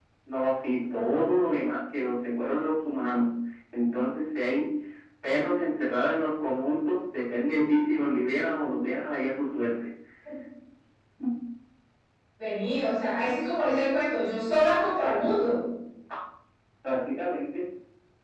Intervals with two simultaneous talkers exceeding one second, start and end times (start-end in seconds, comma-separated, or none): none